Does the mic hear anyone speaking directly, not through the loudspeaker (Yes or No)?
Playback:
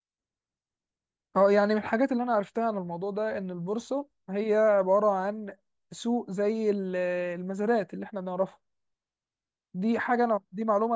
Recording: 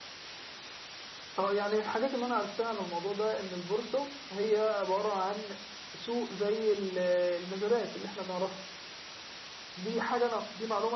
No